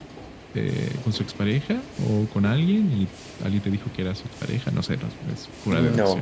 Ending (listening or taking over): taking over